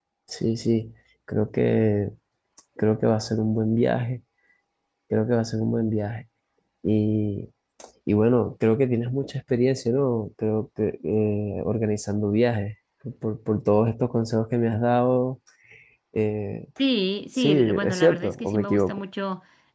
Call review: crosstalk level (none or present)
present